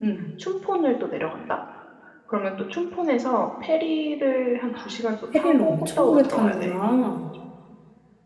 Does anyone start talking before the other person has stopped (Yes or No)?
Yes